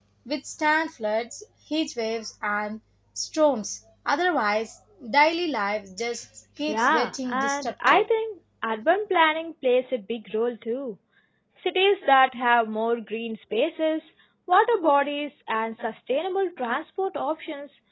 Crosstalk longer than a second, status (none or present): present